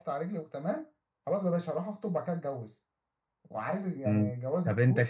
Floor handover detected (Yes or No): Yes